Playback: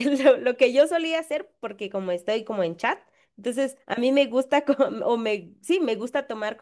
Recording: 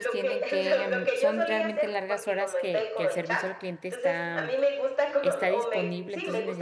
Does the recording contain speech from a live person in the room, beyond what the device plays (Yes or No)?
Yes